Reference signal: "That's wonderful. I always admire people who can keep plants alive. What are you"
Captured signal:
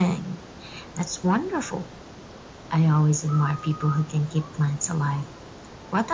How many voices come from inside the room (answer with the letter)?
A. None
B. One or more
A